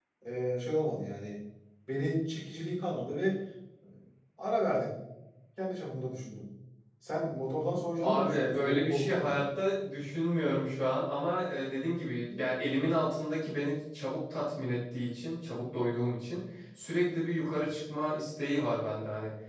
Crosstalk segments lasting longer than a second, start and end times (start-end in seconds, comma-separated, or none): 8.0-9.4